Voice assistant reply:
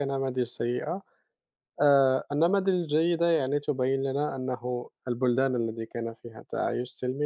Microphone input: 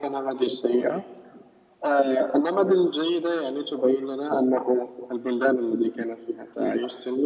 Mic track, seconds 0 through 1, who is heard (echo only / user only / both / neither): echo only